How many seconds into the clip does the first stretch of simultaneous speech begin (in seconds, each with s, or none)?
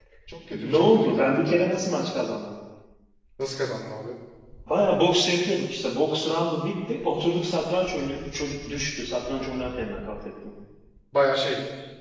0.5 s